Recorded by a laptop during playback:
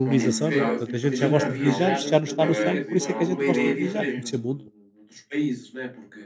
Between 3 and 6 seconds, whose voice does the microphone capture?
both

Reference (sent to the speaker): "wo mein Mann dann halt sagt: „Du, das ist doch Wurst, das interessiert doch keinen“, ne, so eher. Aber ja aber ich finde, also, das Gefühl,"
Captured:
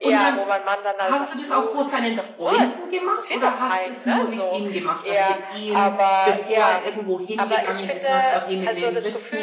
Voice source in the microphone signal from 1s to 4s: both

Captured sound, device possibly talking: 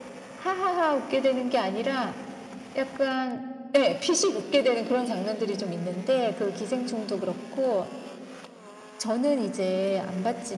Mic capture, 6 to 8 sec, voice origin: echo only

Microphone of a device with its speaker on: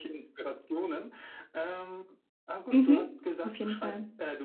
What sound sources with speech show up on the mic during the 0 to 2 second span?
echo only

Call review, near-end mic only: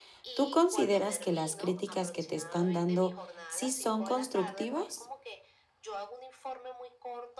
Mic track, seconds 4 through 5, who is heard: both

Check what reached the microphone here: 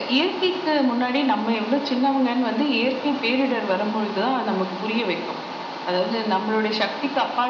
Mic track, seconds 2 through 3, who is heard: echo only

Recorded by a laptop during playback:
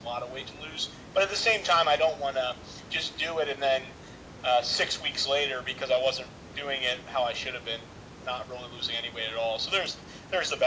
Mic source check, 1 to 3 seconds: echo only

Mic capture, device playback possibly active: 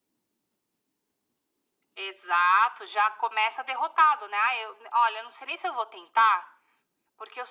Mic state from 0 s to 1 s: neither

